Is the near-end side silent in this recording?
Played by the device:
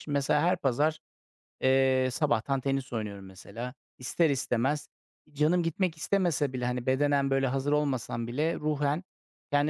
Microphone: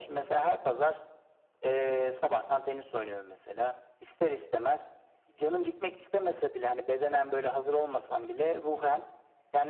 Yes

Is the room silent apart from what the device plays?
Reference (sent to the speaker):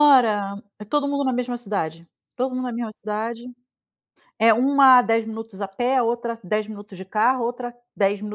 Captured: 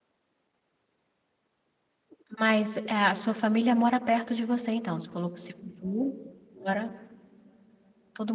No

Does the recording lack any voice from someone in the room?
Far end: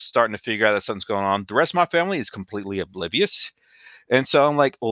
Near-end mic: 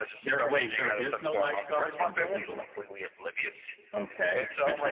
No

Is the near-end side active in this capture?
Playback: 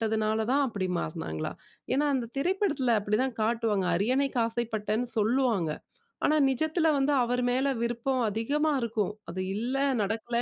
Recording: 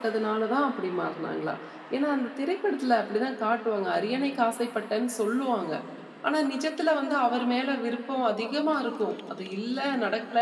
No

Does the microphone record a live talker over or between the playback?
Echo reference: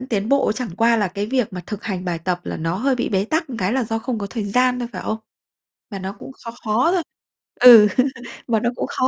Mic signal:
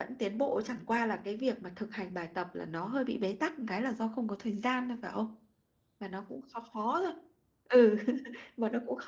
No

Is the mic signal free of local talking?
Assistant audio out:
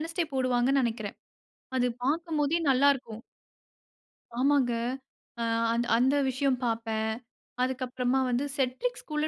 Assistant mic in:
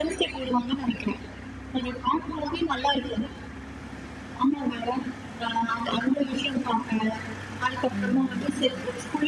No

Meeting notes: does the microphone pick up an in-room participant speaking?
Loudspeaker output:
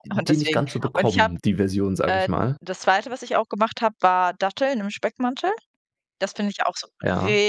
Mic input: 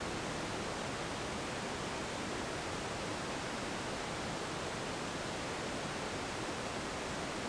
No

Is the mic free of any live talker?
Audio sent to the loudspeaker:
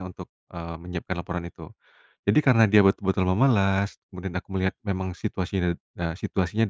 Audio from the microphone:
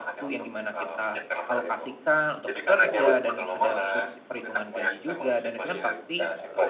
No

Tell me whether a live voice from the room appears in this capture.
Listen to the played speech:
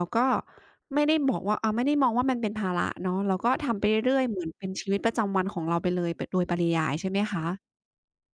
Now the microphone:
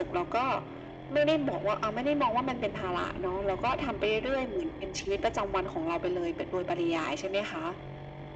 No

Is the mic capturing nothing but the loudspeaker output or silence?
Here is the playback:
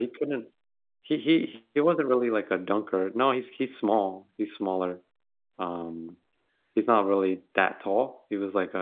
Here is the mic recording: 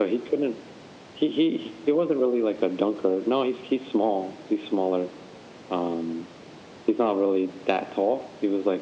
Yes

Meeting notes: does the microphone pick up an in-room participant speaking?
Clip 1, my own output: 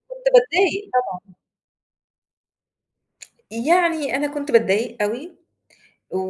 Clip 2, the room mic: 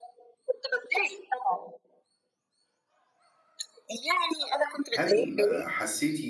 Yes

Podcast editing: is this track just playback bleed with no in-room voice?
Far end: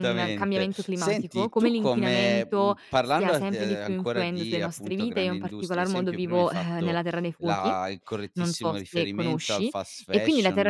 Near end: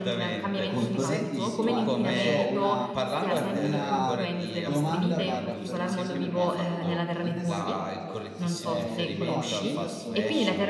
No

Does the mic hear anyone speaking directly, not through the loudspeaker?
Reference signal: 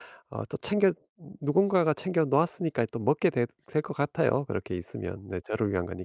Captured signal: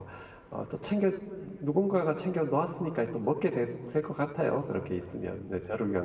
No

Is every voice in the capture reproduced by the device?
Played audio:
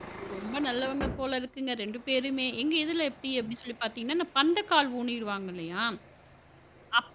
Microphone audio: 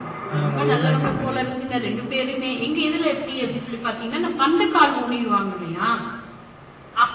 No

